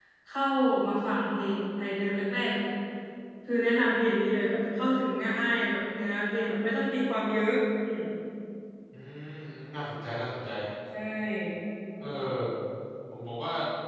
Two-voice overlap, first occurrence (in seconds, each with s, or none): none